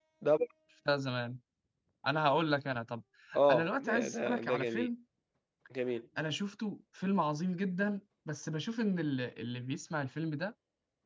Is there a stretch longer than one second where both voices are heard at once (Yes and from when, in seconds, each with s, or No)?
Yes, from 3.5 s